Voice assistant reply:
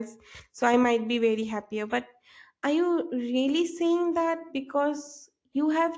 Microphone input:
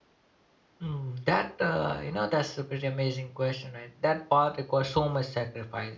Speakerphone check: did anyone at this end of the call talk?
Yes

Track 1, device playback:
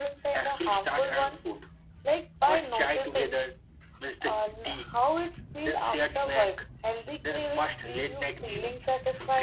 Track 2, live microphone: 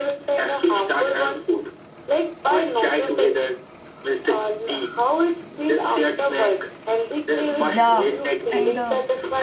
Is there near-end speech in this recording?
Yes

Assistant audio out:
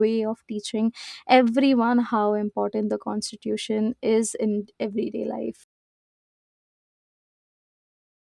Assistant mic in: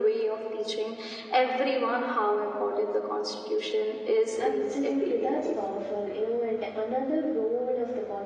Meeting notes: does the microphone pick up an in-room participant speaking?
Yes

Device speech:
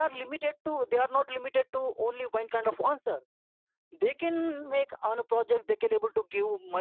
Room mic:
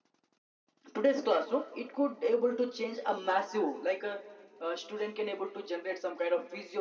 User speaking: Yes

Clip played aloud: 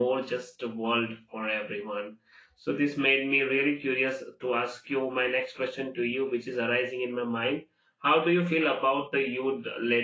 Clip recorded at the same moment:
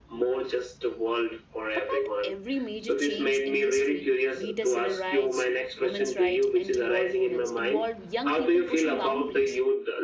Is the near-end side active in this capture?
Yes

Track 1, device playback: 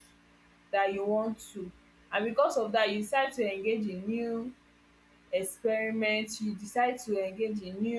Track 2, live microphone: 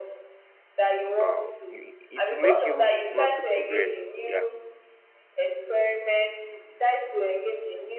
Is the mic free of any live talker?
No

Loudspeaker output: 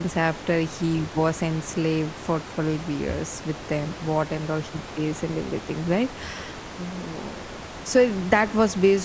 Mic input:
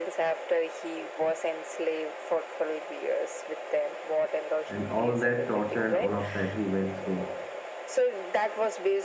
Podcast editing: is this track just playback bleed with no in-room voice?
No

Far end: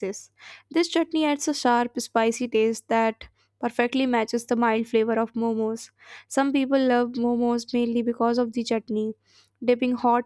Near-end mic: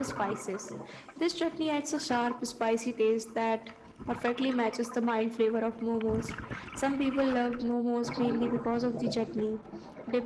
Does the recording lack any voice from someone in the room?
Yes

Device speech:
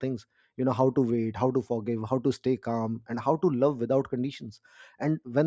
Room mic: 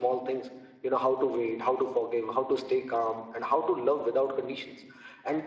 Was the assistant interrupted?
No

